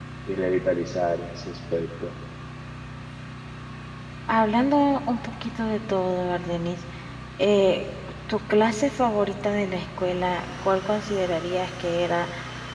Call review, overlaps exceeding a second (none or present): none